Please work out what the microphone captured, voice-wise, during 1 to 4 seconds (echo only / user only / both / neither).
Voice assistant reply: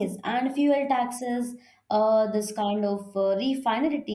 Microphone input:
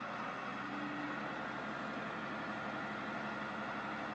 neither